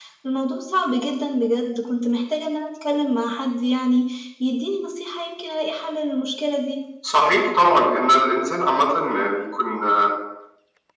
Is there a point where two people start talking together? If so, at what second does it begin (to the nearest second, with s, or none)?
none